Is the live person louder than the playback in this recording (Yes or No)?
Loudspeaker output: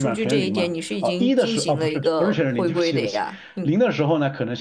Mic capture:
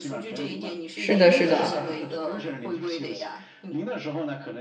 Yes